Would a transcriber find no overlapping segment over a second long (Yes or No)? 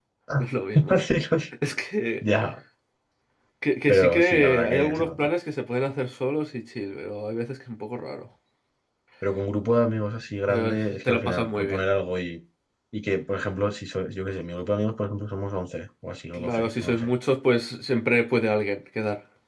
No